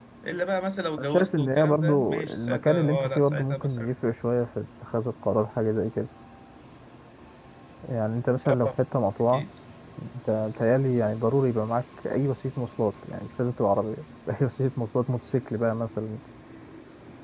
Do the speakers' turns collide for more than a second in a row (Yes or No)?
Yes